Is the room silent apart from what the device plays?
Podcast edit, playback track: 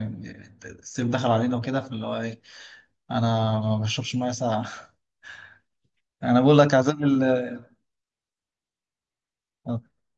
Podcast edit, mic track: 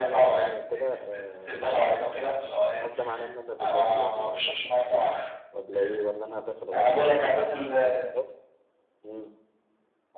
No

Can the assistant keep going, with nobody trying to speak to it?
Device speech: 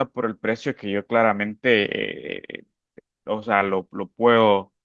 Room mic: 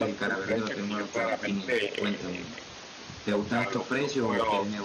No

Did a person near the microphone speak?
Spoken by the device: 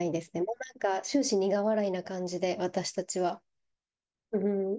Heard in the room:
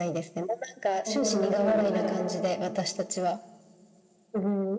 Yes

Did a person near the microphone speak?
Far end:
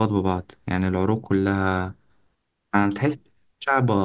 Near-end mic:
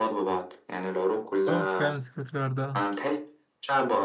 Yes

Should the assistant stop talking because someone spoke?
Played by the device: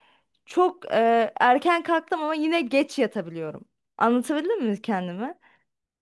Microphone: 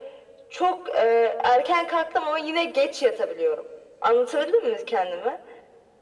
No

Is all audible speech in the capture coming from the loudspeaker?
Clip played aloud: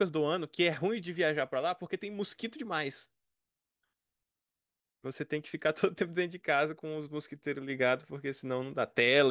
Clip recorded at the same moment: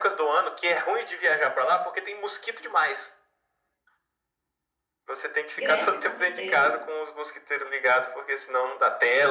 No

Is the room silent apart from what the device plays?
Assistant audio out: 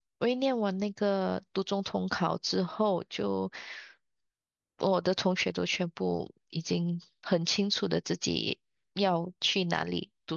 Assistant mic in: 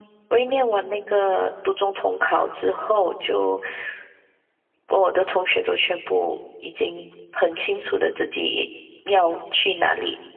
Yes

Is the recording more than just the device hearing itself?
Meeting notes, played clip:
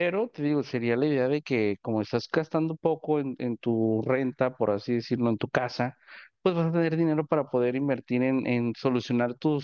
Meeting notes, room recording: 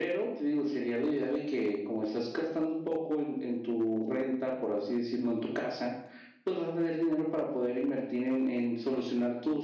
No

